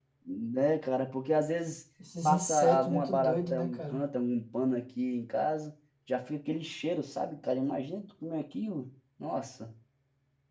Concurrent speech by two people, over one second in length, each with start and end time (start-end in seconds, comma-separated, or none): 2.2-4.0